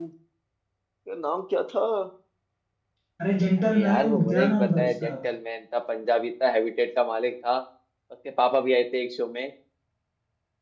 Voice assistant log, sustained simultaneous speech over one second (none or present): present